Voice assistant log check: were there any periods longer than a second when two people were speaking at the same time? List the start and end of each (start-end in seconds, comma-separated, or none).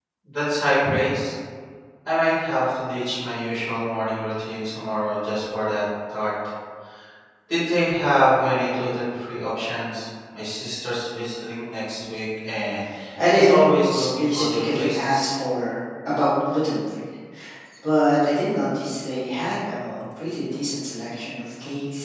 13.3-15.3